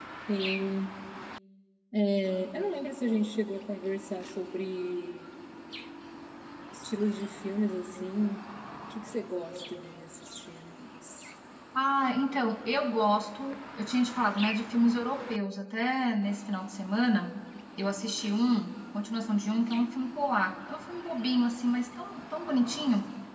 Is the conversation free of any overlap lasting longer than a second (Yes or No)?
Yes